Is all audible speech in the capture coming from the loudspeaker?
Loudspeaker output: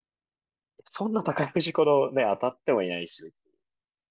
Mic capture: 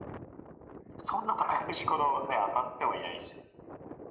Yes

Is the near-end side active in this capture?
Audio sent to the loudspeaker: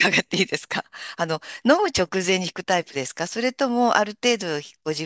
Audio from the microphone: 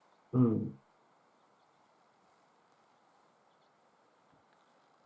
Yes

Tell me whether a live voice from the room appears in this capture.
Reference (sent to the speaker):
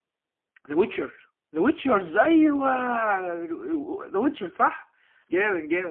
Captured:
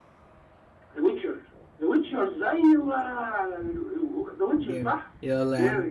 Yes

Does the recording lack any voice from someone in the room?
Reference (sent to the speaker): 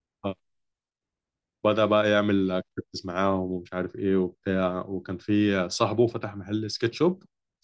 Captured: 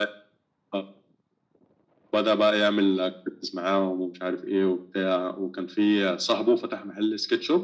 Yes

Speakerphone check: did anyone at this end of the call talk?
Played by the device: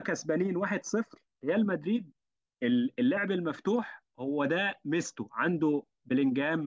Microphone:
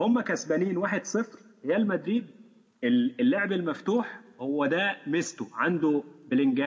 No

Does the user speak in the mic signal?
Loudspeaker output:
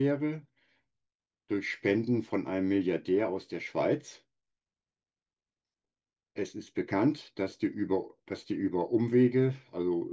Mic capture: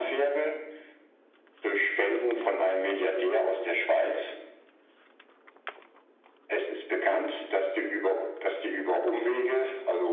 No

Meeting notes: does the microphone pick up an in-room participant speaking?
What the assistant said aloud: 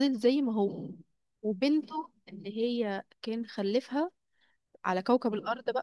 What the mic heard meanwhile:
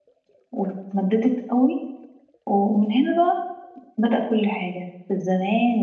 Yes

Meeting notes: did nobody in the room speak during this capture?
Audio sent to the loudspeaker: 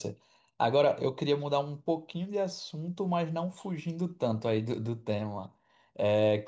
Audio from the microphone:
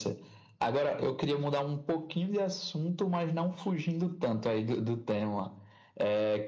Yes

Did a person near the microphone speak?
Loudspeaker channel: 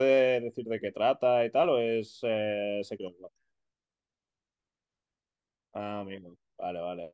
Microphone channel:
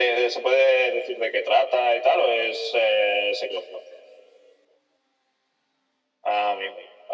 No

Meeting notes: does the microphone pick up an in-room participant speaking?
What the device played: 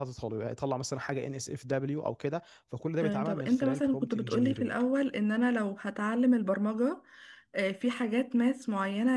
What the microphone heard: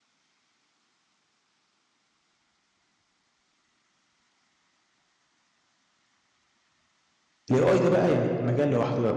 Yes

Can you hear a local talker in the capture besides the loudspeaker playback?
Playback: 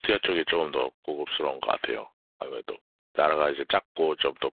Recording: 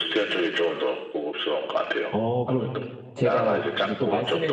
Yes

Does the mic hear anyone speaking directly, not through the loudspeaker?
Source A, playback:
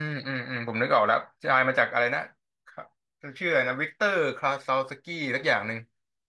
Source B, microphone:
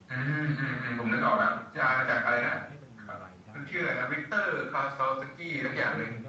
Yes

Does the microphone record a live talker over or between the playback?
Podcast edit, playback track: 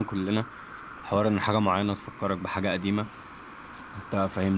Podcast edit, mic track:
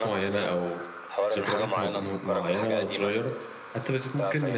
Yes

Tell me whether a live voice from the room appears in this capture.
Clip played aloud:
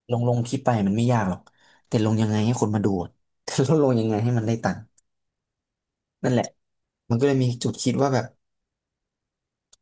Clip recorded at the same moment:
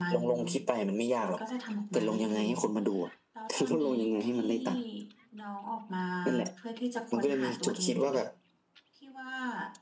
Yes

